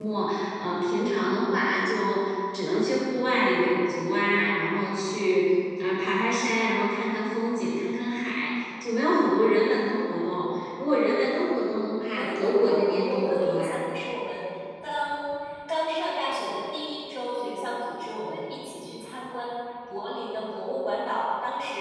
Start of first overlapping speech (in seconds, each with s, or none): 12.1 s